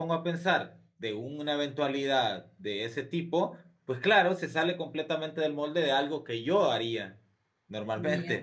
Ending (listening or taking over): listening